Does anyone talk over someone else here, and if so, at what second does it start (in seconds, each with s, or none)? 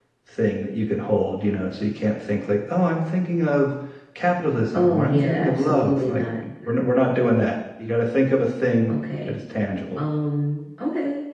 4.7 s